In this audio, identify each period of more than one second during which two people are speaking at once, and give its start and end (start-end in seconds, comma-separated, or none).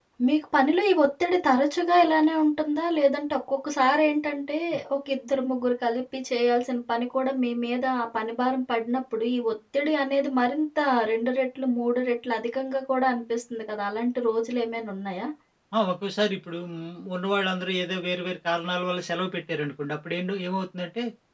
none